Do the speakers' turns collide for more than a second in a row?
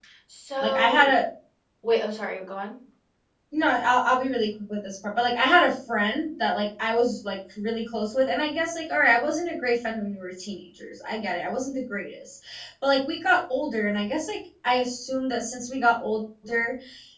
No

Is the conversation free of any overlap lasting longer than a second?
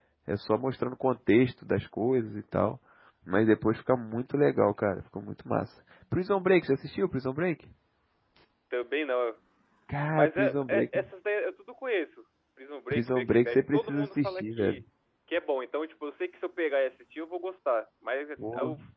No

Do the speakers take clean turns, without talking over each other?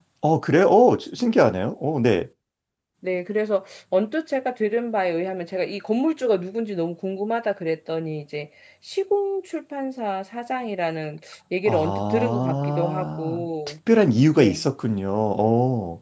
No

